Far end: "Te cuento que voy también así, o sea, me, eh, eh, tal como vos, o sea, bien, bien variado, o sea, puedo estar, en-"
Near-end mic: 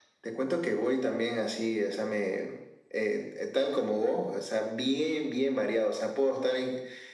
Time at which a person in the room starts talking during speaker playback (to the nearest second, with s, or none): none